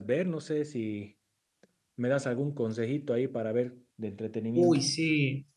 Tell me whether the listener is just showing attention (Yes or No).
No